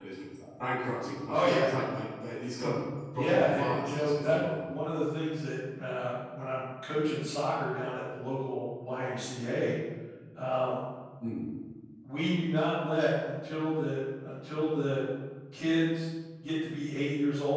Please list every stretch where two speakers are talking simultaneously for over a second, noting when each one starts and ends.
3.1-4.4

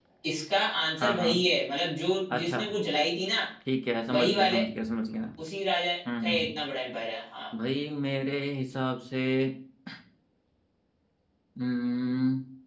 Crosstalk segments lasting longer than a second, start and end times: none

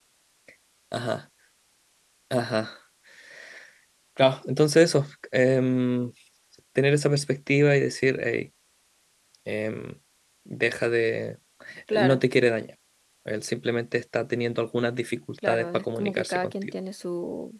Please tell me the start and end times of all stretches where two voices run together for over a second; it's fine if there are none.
15.4-16.7

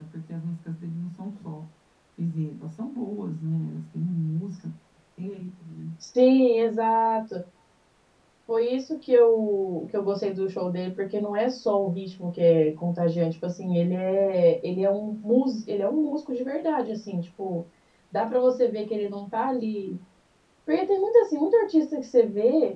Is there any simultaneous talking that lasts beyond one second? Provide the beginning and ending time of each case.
none

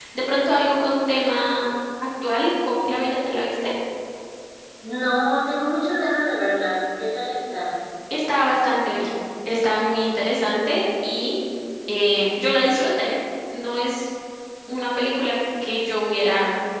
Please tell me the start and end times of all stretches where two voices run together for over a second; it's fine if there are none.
none

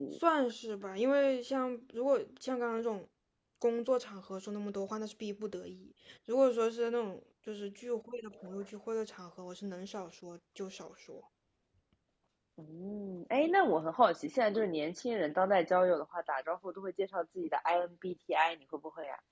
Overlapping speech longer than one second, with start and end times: none

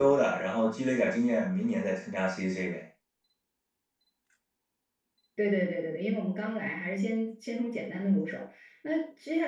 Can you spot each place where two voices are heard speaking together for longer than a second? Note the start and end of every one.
none

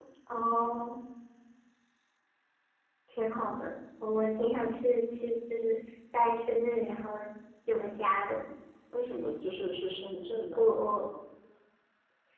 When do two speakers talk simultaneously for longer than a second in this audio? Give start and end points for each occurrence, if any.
none

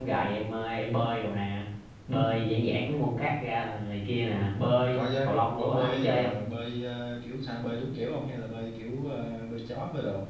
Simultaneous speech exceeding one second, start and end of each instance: 4.9-6.3

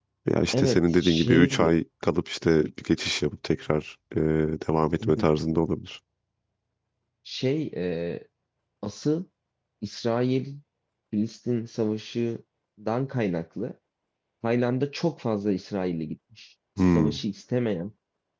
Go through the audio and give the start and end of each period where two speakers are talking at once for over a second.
0.5-1.7

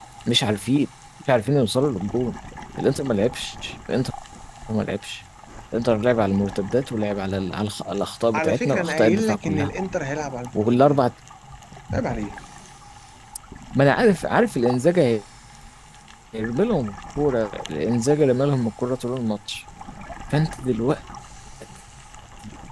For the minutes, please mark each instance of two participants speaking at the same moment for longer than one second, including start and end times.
8.3-9.7

